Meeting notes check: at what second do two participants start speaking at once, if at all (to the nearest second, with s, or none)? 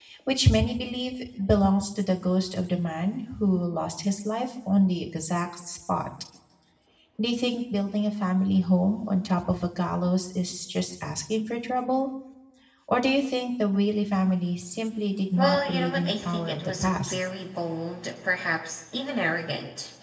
15 s